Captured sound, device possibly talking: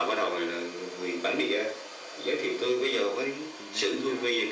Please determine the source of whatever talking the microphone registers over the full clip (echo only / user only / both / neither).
both